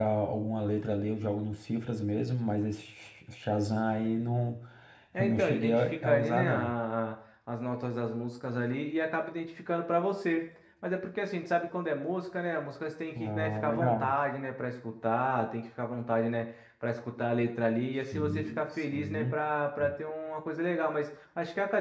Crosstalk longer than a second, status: present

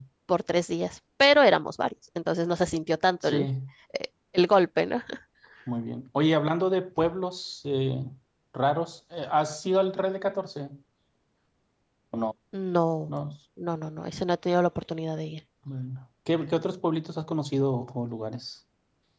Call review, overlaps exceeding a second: none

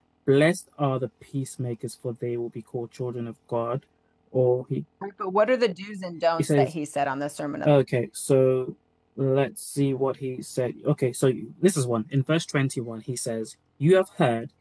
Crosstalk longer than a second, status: none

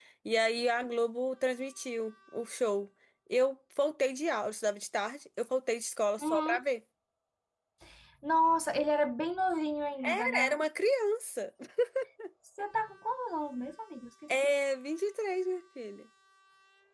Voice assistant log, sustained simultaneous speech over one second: none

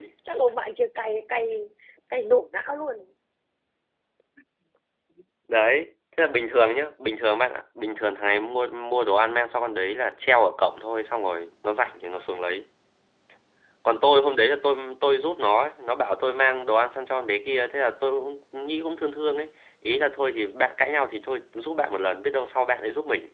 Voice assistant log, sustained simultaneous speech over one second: none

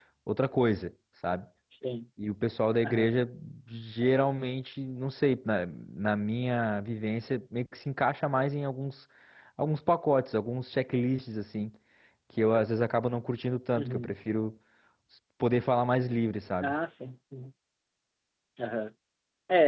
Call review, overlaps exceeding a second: none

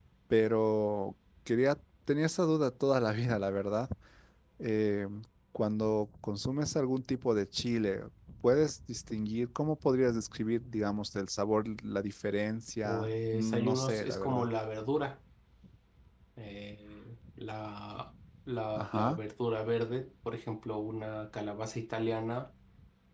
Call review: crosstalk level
present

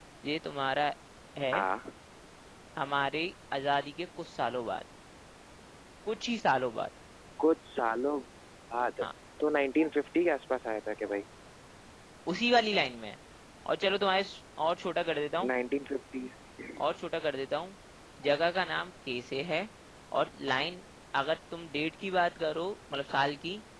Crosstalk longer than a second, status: none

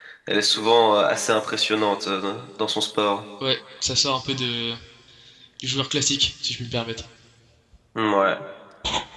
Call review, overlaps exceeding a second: none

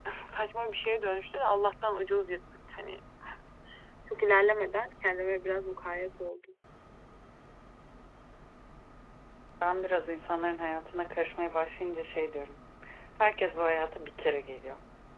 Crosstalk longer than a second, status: none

